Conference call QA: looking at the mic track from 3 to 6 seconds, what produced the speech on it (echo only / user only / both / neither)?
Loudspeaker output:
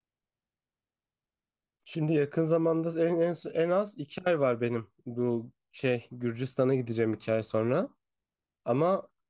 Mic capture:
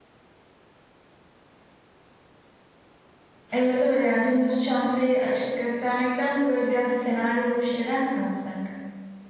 user only